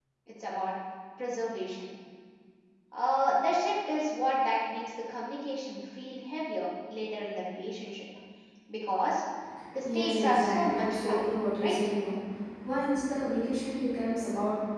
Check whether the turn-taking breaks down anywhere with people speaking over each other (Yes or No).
Yes